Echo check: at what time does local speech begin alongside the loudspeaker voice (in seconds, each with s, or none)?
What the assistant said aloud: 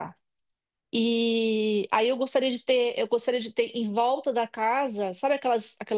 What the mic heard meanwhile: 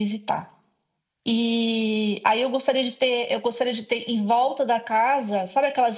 none